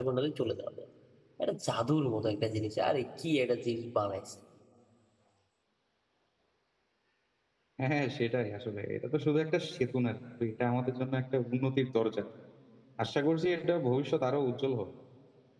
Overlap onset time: none

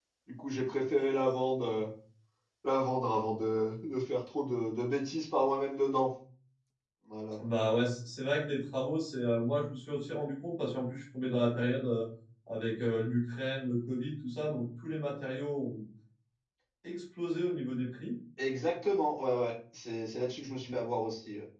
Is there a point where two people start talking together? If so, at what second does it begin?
none

